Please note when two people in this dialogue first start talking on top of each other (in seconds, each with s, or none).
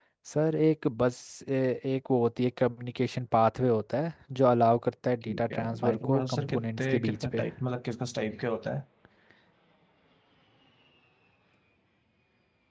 5.3 s